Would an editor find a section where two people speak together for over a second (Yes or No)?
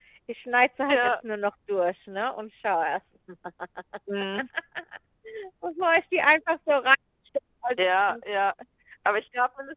No